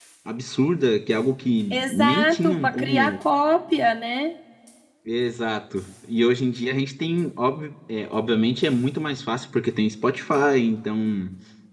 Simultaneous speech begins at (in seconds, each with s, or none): 1.7 s